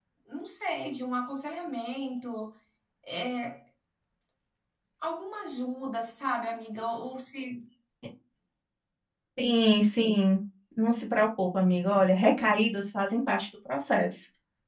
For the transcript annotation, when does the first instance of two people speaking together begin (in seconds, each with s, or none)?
none